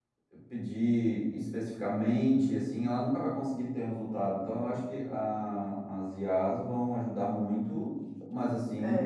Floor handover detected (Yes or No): Yes